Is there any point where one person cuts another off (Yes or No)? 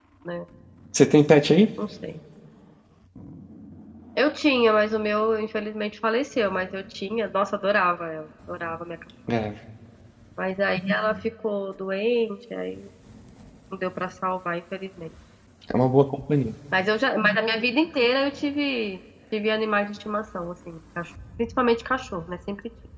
No